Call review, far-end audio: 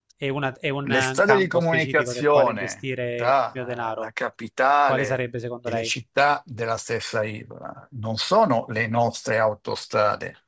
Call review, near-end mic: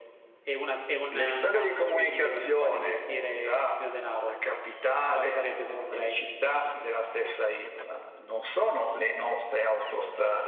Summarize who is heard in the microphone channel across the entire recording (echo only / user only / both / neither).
echo only